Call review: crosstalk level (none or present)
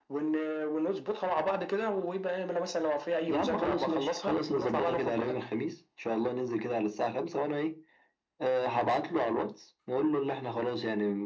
present